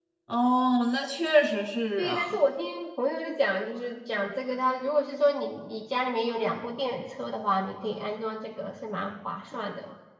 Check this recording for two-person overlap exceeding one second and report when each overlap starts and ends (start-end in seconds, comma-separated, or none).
none